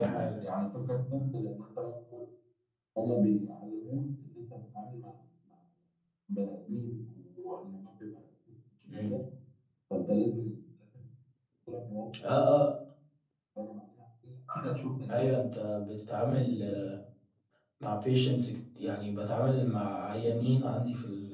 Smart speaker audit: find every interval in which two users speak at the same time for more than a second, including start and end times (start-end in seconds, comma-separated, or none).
none